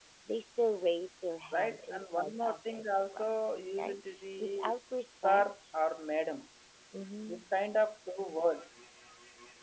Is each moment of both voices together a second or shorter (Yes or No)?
No